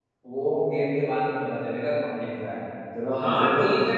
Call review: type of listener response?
taking over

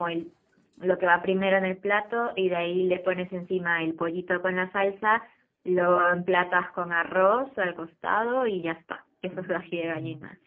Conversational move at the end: taking over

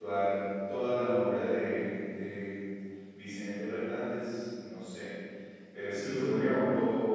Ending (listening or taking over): listening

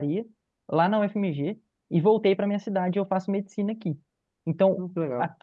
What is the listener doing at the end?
listening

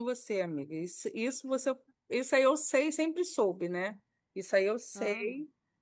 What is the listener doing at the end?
listening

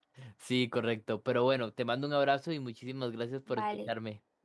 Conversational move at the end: taking over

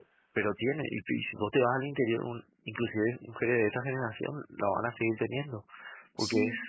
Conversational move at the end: listening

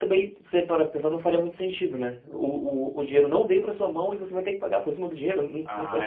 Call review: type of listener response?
taking over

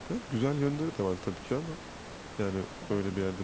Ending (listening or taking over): listening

